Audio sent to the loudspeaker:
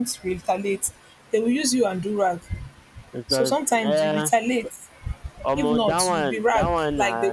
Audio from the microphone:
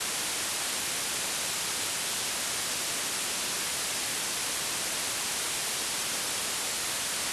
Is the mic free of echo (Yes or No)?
Yes